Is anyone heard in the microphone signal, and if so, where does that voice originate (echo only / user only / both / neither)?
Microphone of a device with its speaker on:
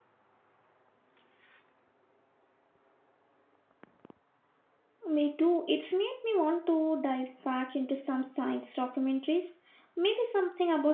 user only